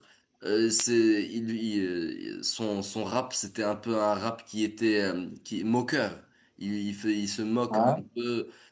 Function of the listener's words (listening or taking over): listening